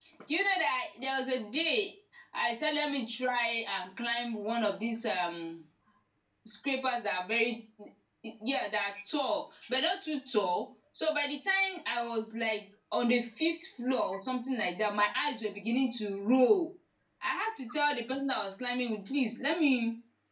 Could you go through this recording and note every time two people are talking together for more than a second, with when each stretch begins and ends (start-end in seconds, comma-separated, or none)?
none